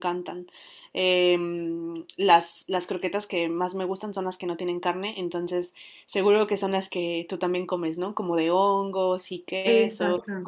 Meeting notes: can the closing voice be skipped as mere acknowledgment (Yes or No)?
No